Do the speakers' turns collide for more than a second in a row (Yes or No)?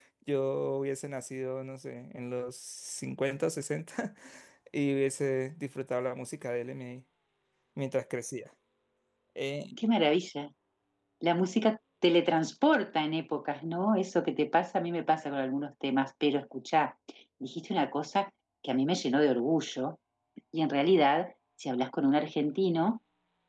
No